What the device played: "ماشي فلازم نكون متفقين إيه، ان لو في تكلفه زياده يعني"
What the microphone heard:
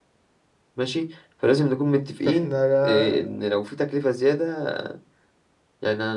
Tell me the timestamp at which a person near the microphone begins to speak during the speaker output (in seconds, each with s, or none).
2.2 s